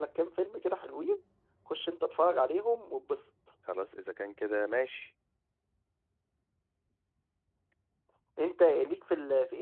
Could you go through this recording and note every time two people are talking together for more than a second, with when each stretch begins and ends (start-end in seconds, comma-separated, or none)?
none